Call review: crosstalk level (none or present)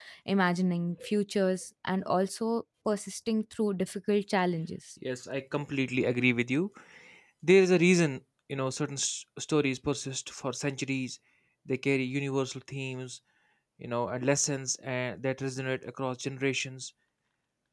none